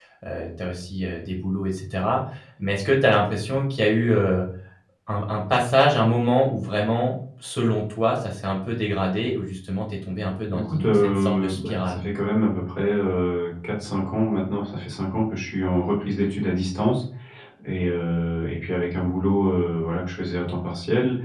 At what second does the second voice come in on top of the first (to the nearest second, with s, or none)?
11 s